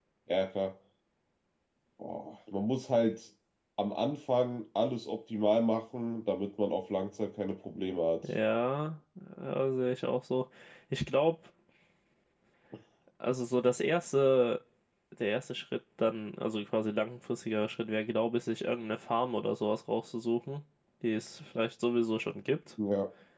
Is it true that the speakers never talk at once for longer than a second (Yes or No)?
Yes